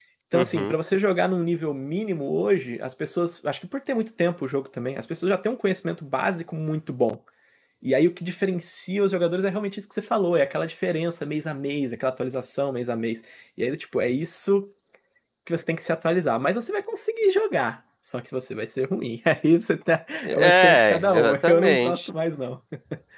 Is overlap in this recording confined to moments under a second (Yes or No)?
No